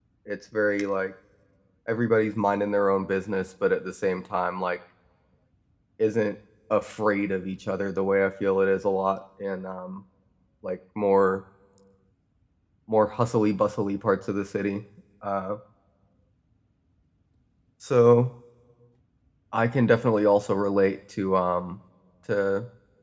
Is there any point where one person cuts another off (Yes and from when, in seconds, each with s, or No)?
No